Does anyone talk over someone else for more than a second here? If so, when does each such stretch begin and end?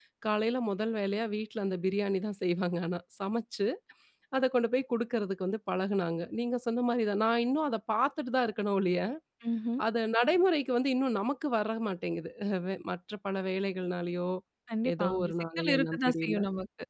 15.0-16.4

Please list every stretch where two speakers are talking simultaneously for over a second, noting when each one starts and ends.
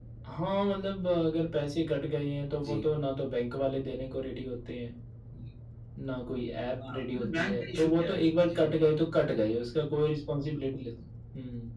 6.9-9.0

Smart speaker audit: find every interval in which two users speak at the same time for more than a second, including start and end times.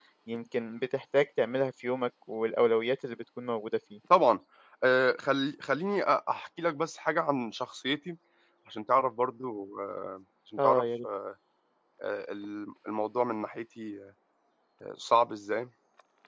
none

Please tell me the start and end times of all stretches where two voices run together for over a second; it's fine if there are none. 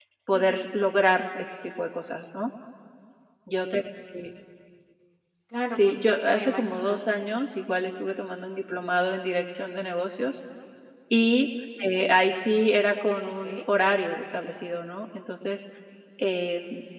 5.7-7.0

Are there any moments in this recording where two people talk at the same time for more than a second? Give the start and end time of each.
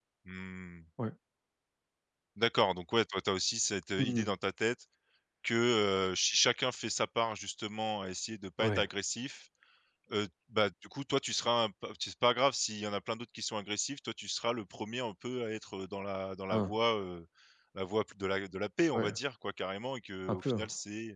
none

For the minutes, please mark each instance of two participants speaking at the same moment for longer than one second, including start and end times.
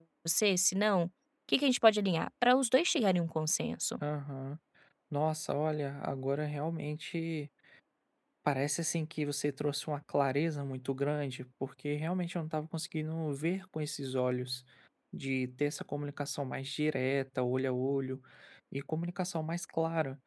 none

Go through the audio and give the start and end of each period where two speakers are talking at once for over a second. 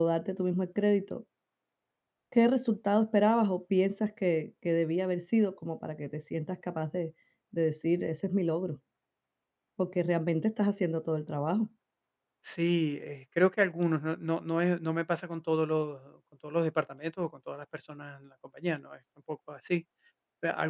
none

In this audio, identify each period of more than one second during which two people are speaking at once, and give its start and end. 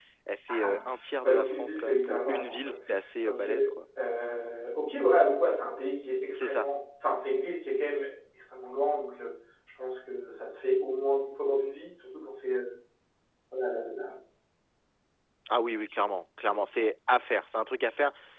1.2-2.7

